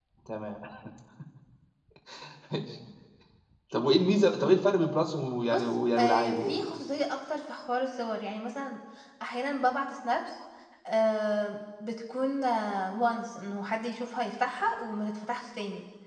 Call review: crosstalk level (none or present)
present